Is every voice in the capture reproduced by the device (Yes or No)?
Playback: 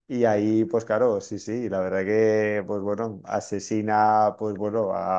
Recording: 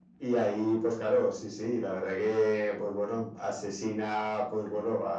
Yes